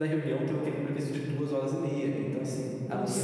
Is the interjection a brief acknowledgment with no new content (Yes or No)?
Yes